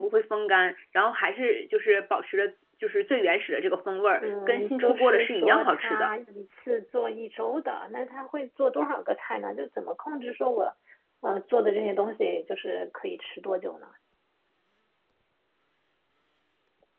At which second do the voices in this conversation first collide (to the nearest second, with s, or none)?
4 s